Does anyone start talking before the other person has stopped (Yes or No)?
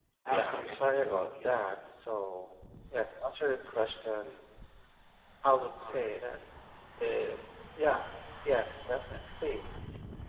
Yes